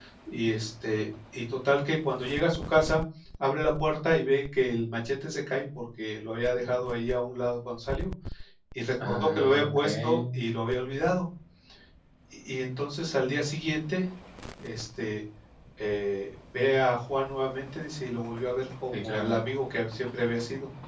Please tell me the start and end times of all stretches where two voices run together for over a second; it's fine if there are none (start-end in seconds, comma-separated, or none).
9.0-10.3